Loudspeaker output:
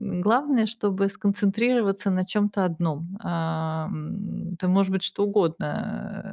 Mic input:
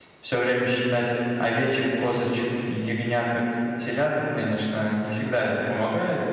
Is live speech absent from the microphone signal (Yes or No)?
No